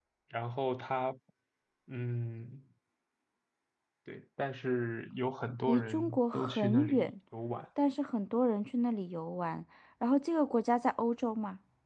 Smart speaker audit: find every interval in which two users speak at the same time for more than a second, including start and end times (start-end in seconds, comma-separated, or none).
5.7-7.1